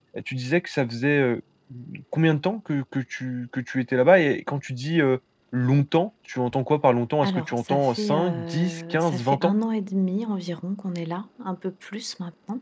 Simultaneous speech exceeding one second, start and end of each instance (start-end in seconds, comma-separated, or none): 7.2-9.5